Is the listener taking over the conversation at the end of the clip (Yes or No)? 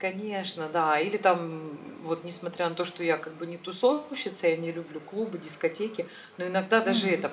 No